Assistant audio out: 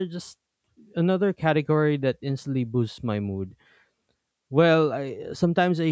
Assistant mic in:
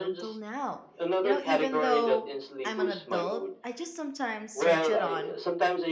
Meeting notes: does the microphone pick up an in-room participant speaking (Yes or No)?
Yes